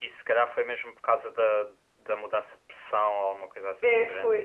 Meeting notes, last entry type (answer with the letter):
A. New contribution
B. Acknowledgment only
A